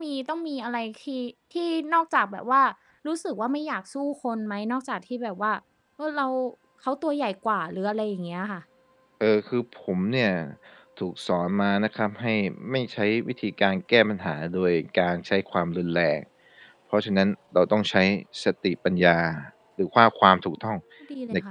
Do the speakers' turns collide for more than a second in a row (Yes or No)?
No